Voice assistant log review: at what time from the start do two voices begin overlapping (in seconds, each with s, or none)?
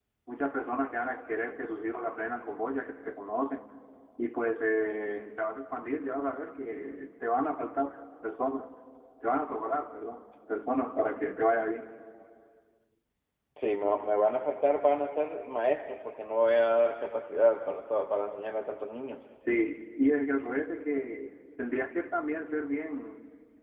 none